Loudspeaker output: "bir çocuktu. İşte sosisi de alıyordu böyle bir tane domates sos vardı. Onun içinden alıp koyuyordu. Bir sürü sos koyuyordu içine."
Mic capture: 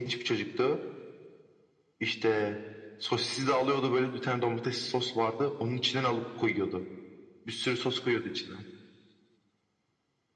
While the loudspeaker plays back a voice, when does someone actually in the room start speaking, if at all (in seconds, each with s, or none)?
none